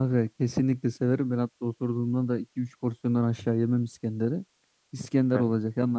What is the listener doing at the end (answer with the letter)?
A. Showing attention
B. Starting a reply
A